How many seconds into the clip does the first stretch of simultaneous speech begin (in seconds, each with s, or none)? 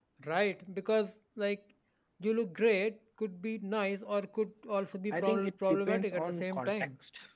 5.1 s